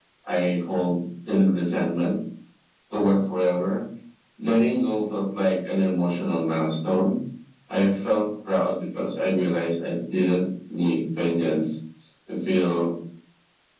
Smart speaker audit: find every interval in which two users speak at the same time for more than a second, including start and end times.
none

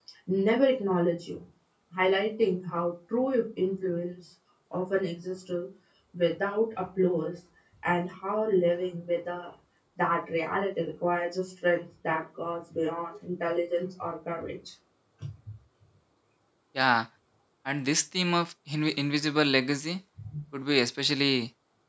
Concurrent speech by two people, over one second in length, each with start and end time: none

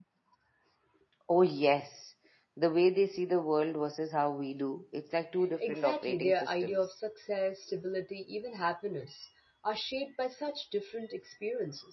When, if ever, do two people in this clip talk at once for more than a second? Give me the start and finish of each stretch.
5.6-7.0

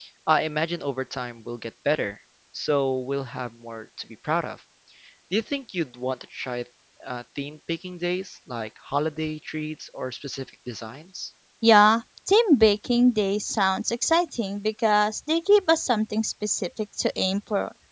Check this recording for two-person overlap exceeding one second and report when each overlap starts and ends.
none

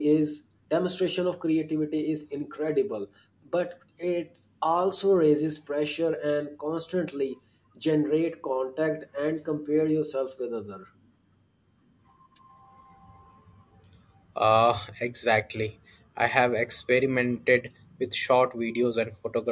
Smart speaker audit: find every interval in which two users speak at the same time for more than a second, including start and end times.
none

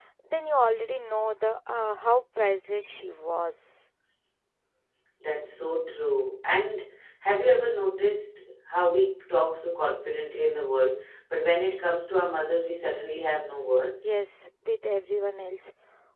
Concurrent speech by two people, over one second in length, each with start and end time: none

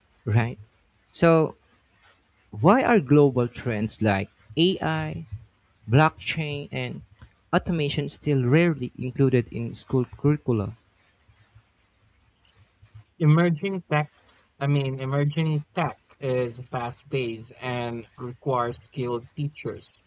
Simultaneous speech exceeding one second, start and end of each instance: none

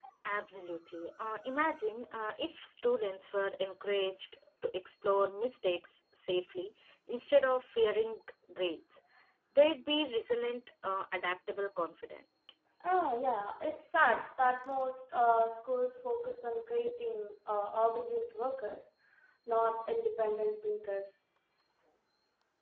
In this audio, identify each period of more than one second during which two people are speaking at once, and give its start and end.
none

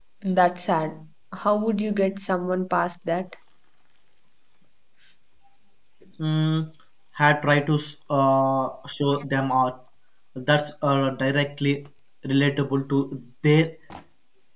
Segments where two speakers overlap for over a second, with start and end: none

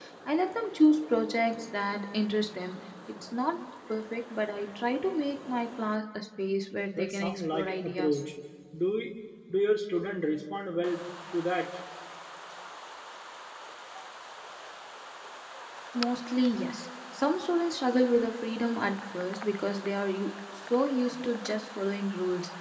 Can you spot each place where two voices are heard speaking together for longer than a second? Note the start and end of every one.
7.0-8.2

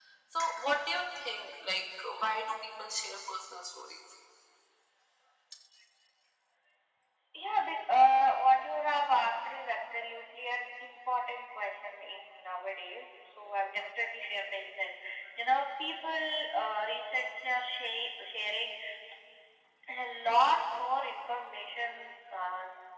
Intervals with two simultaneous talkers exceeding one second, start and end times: none

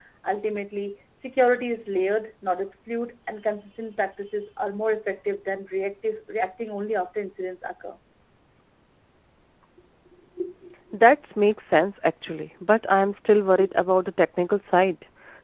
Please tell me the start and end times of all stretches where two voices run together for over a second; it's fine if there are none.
none

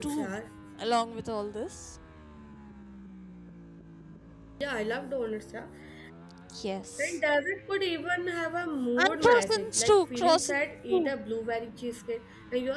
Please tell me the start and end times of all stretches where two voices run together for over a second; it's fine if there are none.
9.0-11.1

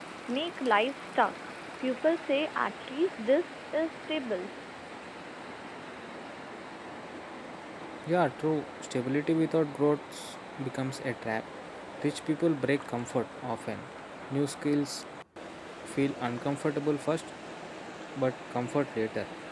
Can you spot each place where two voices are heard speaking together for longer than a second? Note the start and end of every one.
none

